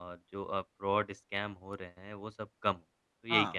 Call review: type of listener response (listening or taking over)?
taking over